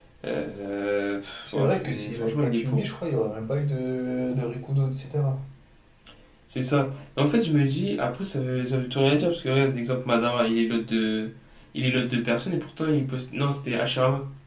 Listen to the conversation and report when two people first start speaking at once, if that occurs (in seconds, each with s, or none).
1.5 s